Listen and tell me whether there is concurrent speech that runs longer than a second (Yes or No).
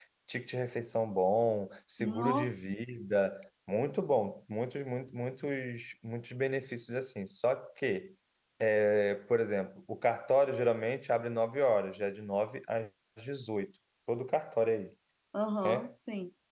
No